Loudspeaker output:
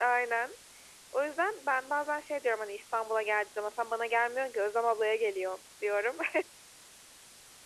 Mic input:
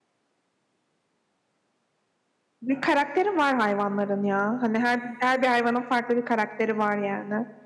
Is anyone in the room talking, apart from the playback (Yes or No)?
Yes